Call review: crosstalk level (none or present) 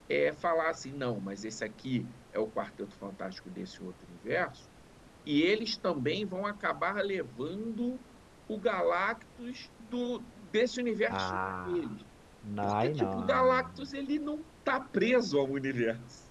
present